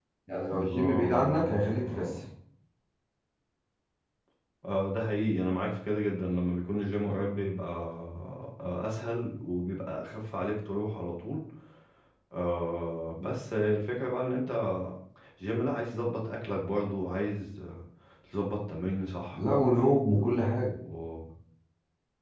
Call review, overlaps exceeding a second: present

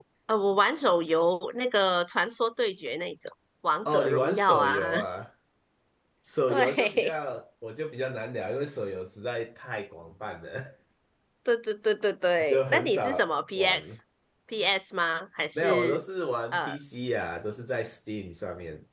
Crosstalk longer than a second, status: present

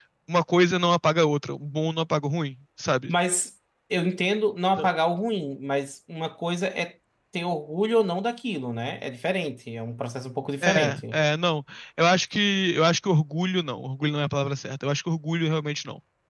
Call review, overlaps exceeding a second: none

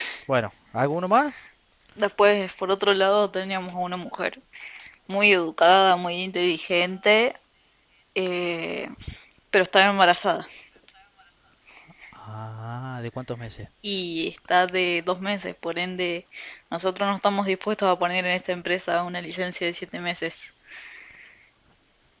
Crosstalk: none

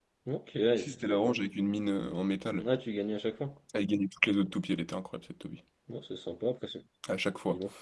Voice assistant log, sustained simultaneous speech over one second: none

